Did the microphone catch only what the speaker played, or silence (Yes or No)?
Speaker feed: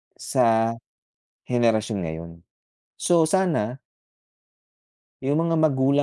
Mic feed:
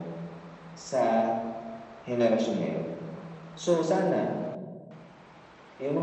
Yes